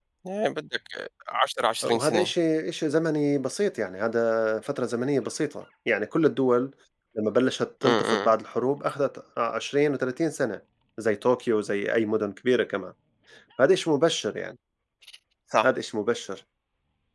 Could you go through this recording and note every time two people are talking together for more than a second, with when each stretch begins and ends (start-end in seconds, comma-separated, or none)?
none